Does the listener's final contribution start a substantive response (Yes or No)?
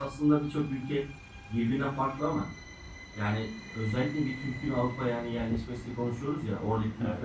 No